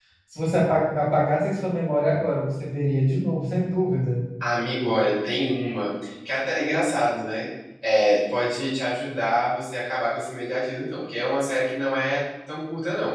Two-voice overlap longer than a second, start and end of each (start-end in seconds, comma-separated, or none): none